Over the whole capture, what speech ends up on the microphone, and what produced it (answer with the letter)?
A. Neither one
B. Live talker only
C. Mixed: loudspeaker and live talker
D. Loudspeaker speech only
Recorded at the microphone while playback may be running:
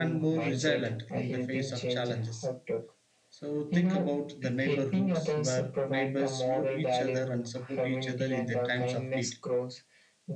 C